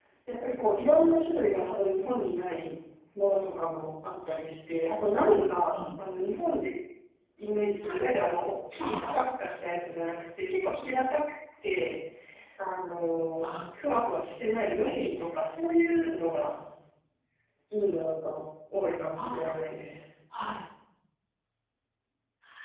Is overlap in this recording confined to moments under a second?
Yes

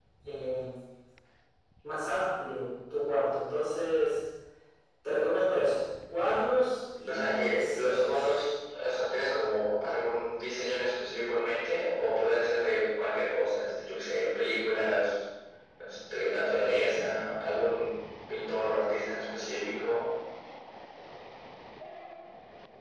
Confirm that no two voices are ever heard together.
No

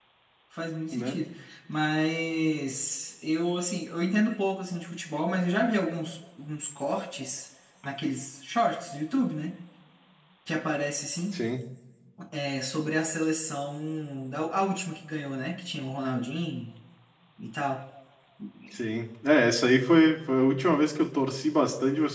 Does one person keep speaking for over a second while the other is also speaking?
No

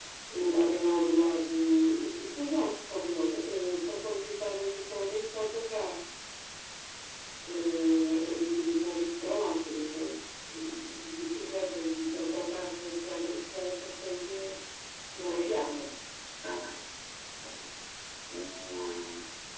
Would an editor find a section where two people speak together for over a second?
No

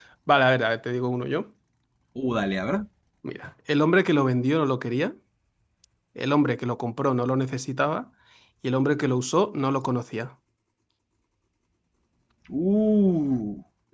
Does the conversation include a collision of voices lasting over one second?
No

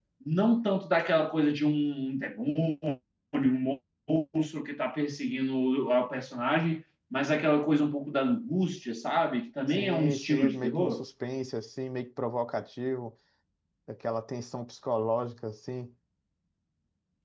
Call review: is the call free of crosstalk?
No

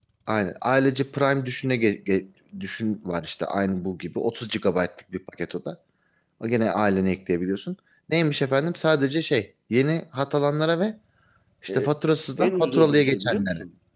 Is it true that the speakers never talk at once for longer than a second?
No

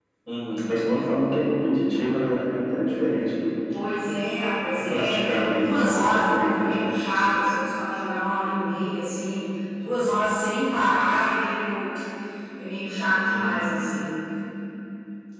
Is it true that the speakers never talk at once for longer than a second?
No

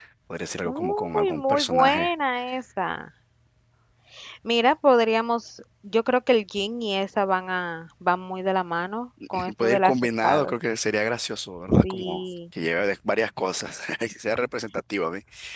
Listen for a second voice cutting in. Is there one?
Yes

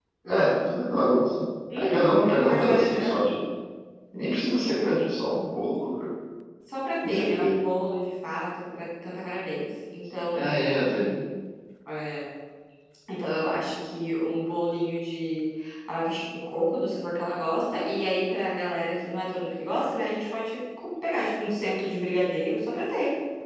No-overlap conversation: No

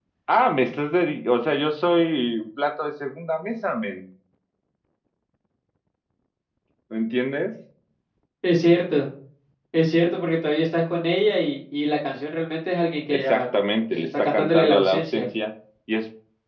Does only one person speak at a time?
No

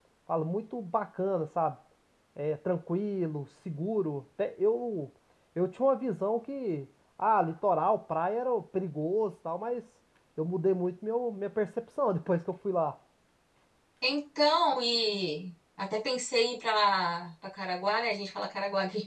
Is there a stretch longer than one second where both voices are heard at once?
No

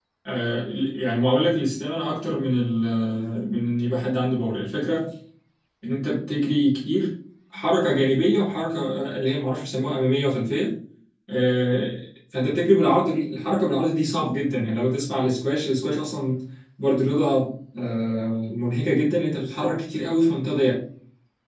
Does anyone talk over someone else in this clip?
No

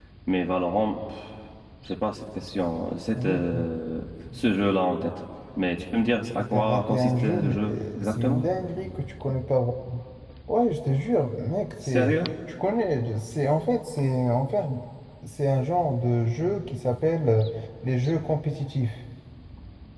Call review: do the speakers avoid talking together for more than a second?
No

